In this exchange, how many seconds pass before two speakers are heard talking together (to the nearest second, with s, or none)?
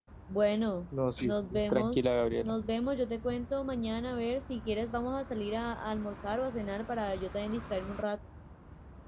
1 s